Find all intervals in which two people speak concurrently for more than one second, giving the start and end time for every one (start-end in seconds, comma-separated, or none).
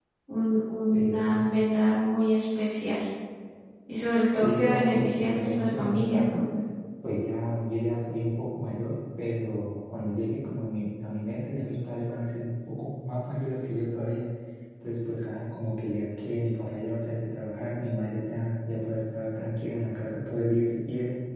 4.3-6.4